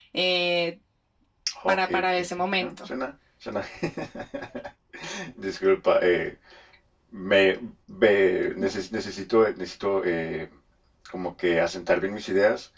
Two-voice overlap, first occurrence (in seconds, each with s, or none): 1.7 s